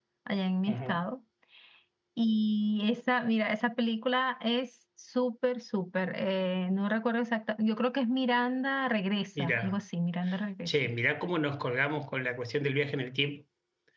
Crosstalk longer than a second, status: none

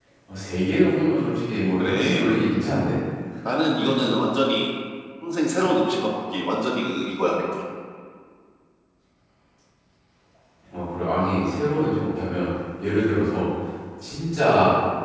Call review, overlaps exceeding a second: none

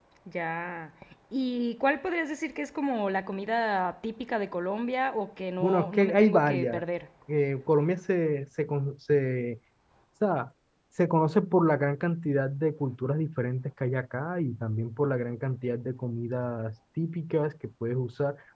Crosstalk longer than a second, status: present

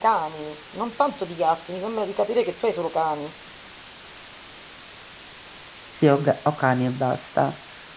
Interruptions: none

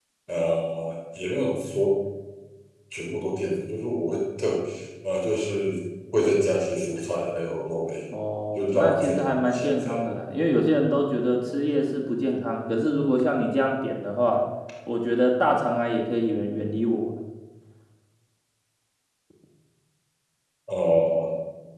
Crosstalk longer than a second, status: present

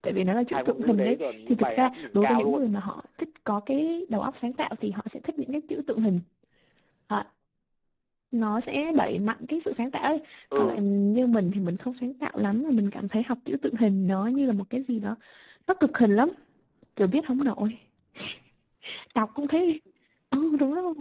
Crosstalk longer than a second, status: present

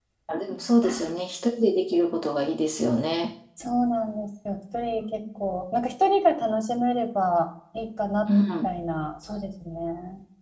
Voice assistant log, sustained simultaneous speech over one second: none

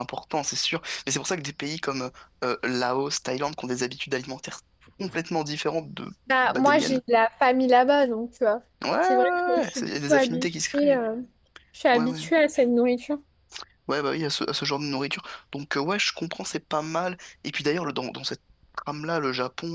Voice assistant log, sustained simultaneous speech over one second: present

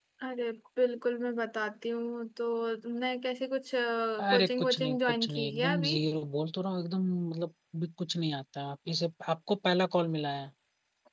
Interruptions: present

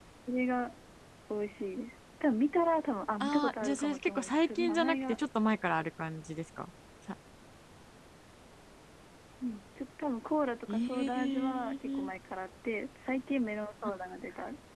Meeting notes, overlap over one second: present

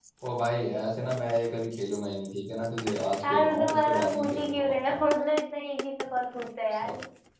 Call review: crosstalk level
present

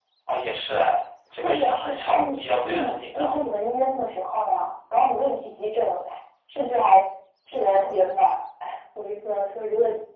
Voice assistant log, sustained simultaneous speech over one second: present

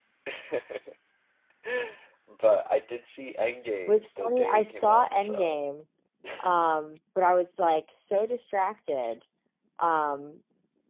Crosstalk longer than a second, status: present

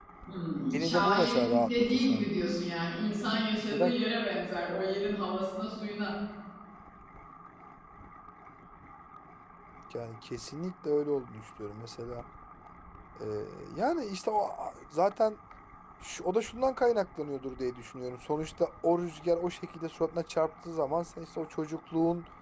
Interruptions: present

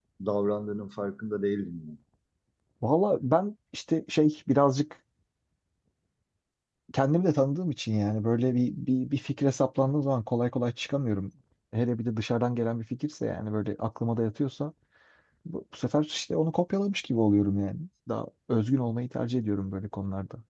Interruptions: none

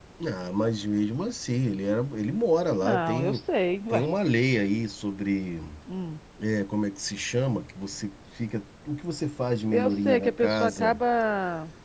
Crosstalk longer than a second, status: present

